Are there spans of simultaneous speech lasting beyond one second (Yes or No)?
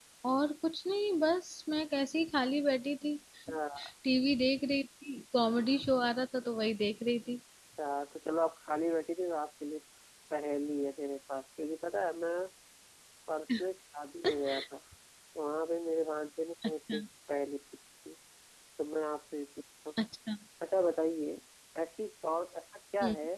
No